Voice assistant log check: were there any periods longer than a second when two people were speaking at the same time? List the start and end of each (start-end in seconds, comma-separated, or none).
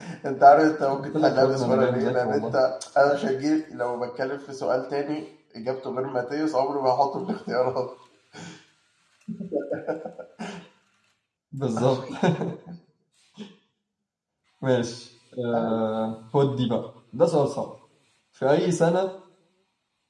0.9-2.6